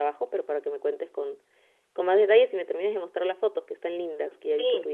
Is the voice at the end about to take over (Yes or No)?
Yes